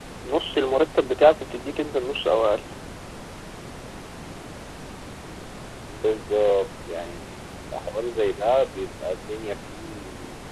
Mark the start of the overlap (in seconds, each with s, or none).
none